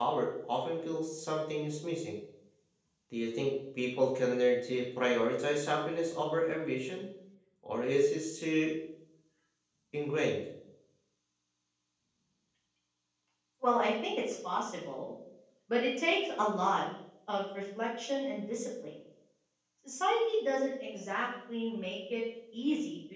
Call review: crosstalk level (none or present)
none